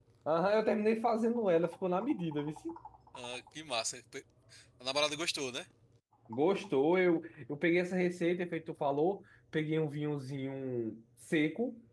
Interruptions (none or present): none